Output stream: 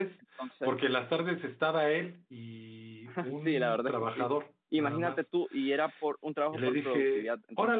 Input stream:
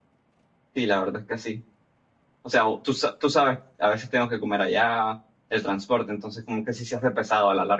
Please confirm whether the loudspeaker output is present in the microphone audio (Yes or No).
No